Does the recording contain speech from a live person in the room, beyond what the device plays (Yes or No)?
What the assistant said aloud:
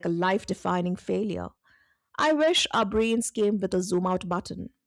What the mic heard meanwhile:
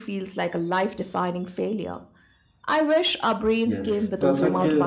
Yes